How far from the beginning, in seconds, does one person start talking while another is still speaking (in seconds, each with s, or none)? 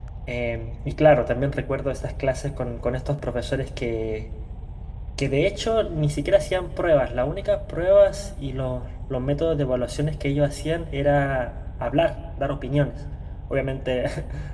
none